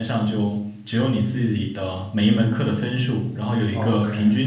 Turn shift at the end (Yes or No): No